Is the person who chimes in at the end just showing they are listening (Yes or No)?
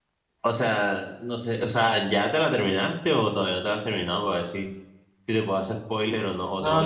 No